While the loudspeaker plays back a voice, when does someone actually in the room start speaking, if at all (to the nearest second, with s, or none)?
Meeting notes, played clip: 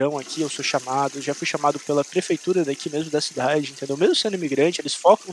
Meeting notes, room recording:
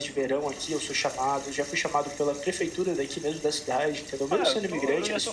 4 s